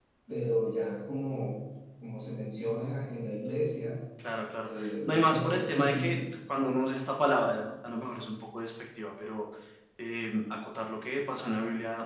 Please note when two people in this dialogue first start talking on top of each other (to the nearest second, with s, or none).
5 s